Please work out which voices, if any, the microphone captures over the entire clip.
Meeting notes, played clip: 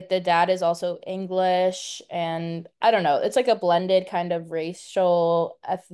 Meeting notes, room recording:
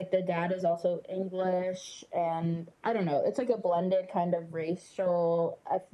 echo only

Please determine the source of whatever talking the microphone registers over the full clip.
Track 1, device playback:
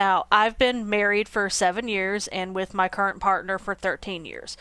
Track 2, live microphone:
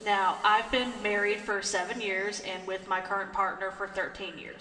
echo only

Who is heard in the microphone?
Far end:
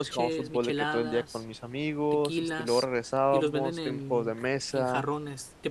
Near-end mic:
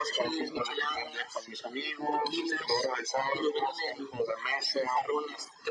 echo only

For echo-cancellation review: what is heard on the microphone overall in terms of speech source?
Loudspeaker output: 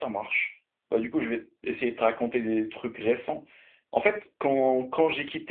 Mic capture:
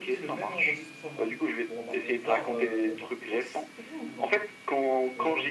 both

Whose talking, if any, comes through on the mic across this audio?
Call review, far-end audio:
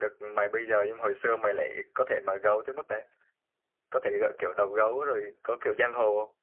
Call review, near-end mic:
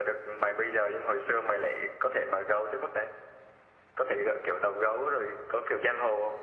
echo only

